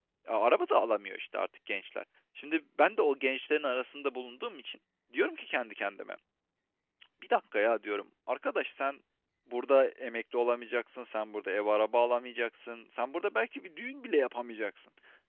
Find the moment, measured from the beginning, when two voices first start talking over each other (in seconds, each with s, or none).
none